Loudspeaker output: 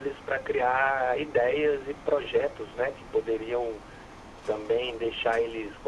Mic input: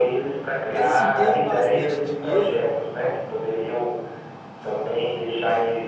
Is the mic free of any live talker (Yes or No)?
No